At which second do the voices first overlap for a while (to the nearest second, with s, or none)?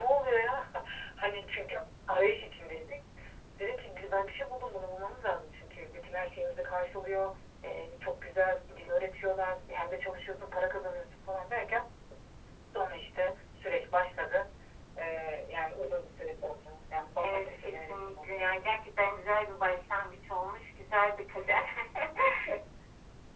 17 s